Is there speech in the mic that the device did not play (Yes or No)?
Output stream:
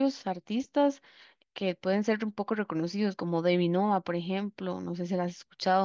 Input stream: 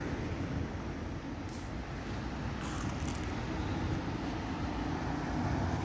No